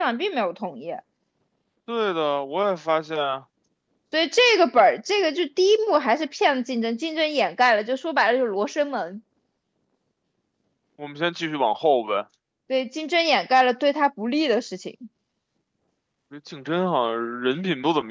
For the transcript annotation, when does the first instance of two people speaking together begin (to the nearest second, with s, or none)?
none